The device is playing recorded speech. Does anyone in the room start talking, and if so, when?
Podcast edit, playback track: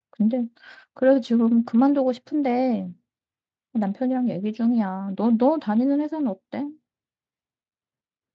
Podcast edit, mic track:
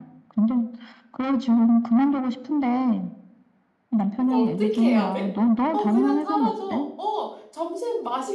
4 s

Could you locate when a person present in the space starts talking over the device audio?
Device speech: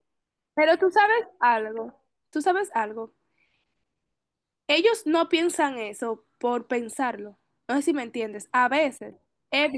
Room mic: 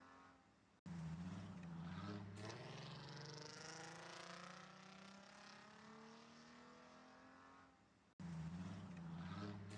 none

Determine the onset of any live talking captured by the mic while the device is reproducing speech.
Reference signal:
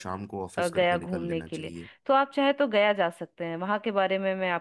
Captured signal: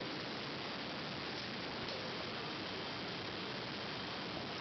none

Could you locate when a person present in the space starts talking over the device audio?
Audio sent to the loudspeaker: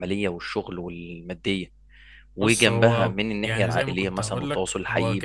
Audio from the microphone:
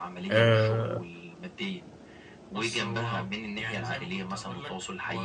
0 s

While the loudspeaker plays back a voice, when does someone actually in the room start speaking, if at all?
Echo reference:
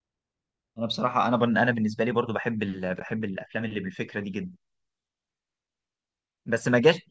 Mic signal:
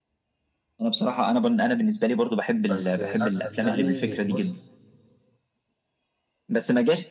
3 s

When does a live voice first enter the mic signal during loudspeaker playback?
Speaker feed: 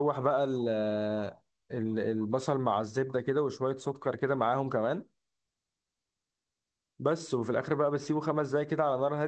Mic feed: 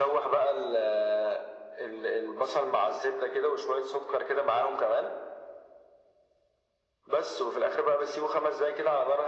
none

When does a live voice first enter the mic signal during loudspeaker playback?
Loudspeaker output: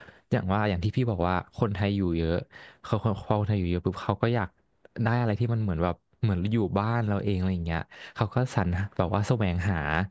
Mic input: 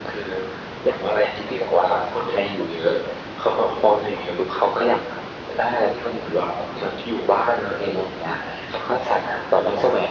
none

